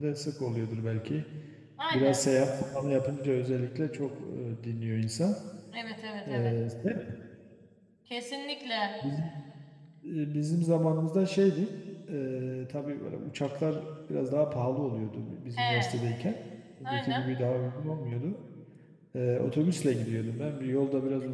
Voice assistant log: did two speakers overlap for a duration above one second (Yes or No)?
No